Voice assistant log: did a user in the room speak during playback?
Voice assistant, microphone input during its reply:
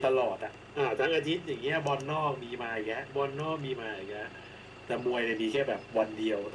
No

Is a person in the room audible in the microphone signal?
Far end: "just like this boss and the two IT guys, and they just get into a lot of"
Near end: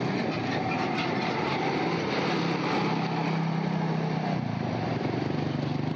No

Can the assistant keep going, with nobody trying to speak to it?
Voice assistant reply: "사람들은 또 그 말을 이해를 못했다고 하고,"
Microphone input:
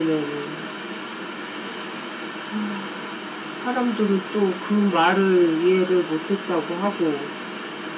Yes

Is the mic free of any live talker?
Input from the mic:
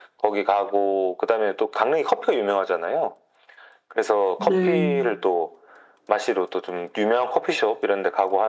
No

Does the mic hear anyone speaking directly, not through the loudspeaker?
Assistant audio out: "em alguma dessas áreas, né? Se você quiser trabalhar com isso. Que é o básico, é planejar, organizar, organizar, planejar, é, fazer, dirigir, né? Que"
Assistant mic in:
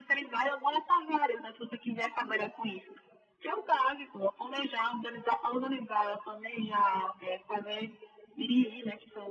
No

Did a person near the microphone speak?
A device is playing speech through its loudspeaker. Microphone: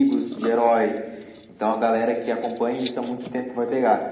No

